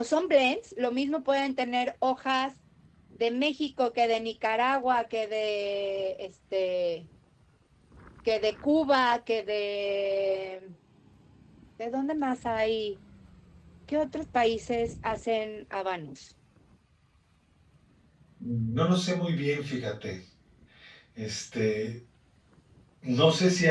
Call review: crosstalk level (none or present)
none